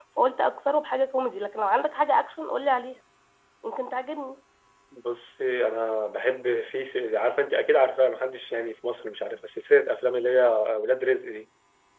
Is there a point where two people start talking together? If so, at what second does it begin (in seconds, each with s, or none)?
none